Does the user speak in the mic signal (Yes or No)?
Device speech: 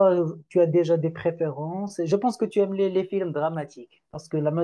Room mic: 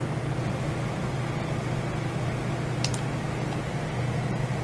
No